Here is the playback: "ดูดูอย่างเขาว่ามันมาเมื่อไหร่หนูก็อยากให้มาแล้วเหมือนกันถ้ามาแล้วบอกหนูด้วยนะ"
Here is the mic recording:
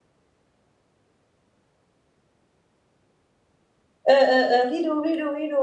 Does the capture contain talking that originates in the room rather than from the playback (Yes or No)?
Yes